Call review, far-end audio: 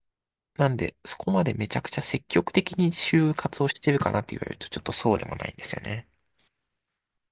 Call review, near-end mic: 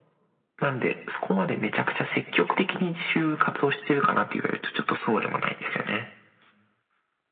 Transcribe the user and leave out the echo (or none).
none